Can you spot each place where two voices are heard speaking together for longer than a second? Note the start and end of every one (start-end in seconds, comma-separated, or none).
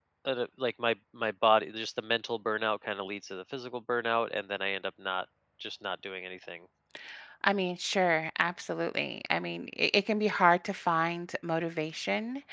none